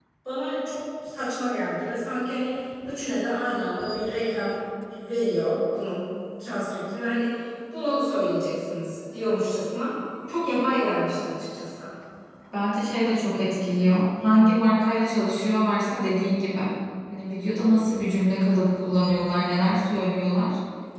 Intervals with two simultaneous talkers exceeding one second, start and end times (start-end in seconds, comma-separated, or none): none